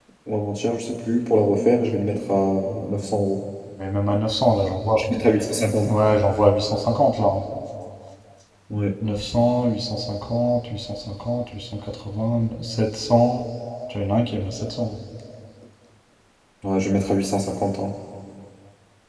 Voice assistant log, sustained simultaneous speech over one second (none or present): none